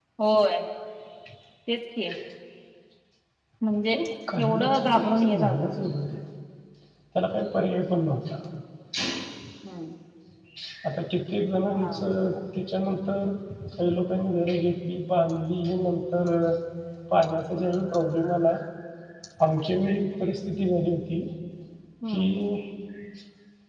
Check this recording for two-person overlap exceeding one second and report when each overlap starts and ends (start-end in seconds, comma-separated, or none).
4.4-5.8